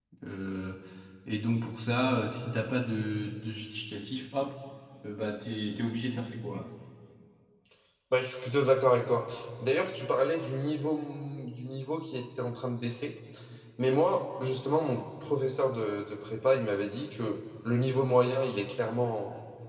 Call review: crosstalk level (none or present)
none